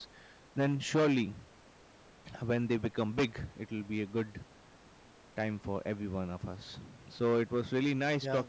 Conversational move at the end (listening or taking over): listening